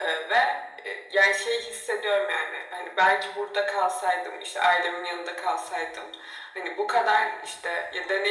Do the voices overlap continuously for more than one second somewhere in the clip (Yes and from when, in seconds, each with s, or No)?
No